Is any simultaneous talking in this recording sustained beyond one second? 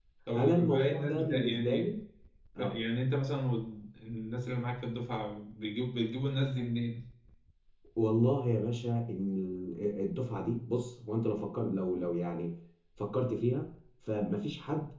Yes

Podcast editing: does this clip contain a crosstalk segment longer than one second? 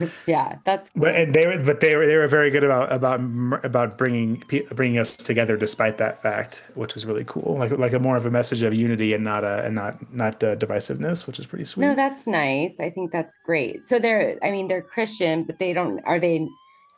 No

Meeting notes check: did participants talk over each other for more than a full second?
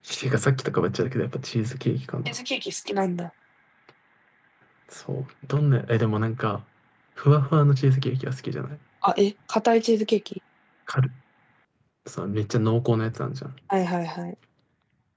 No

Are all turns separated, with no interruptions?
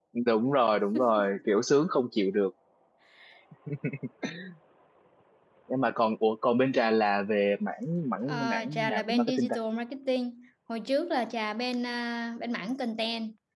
No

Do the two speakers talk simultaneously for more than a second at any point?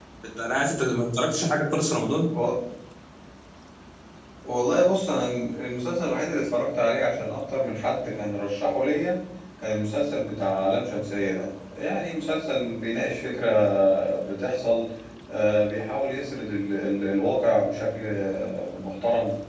No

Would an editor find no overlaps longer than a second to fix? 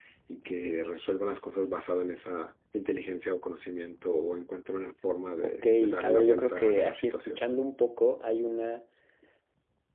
No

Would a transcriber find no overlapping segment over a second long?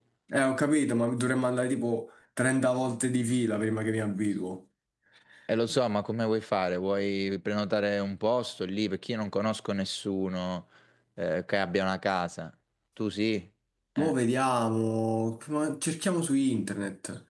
Yes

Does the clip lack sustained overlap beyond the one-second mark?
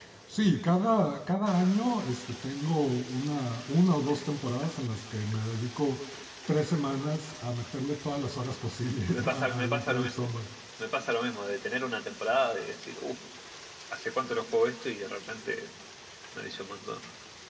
No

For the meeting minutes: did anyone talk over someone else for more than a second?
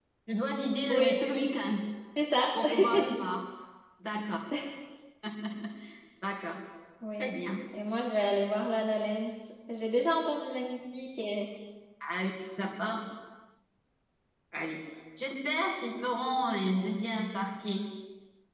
No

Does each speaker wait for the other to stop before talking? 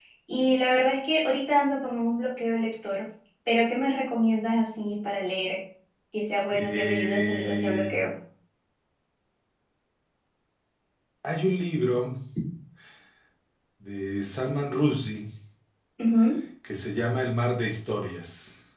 No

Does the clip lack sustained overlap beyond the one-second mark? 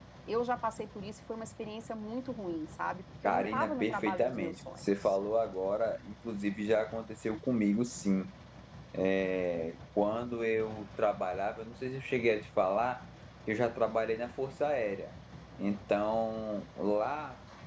No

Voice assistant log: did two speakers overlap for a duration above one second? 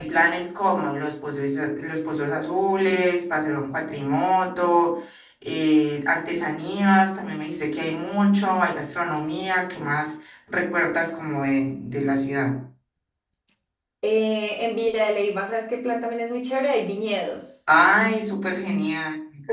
No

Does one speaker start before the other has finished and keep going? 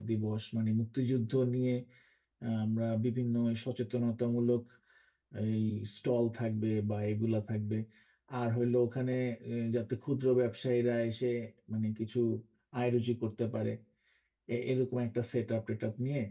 No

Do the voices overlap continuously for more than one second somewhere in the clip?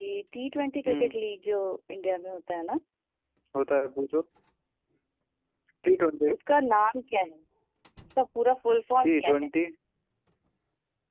No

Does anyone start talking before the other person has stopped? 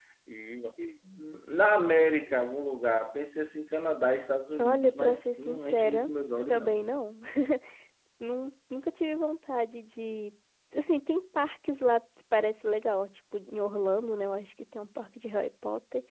Yes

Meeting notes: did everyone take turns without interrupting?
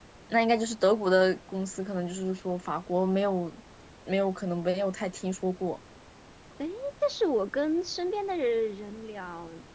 Yes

